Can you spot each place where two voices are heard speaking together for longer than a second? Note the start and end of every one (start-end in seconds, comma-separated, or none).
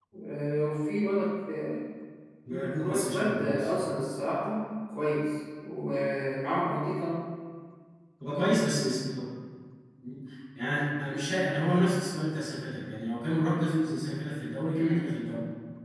2.5-3.7